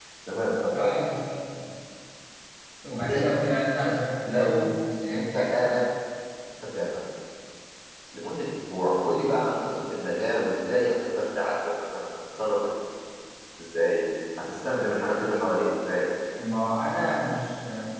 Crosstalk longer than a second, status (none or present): none